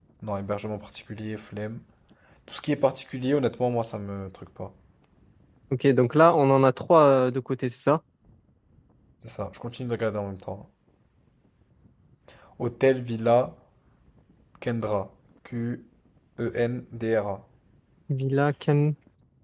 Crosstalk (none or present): none